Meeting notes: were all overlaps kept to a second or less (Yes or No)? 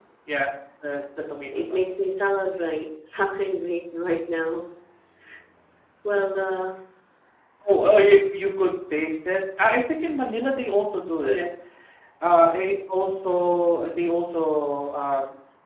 Yes